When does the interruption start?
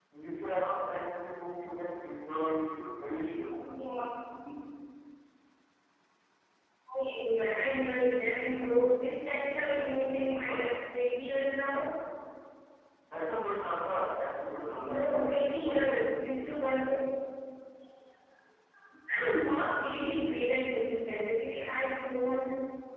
9.2 s

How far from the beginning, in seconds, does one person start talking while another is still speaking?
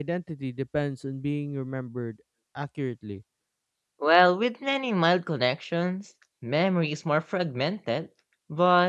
none

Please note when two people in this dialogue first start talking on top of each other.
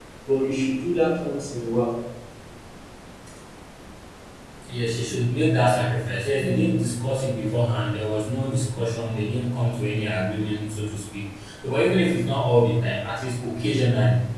none

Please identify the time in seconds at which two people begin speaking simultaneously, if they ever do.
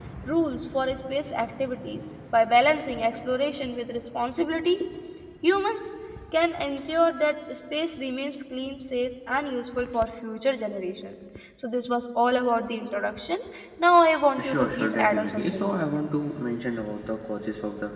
14.4 s

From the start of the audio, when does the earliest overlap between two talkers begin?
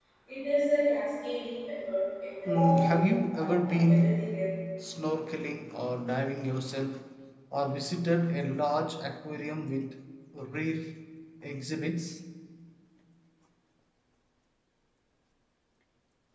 2.5 s

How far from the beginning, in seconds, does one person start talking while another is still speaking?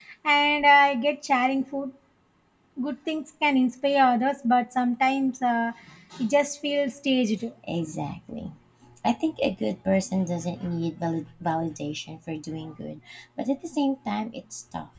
none

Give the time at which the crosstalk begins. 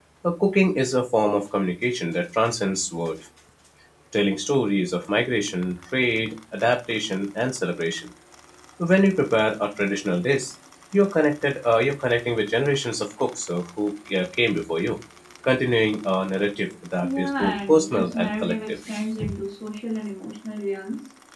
17.0 s

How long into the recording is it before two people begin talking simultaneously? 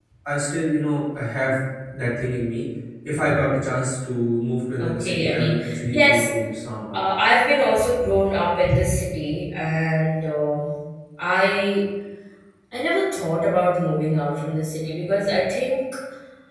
4.8 s

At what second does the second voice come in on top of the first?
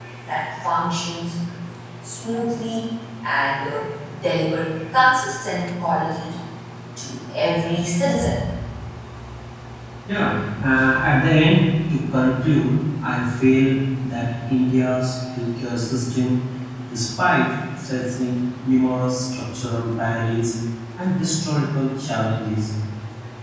none

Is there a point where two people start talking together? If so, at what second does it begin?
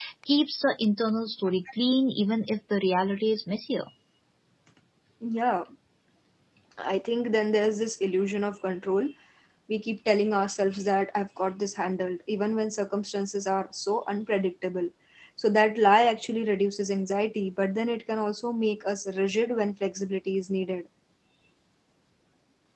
none

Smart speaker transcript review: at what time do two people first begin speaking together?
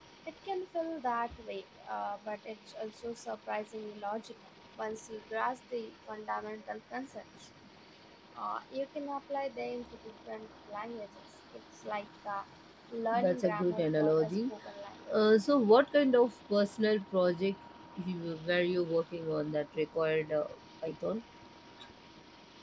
13.1 s

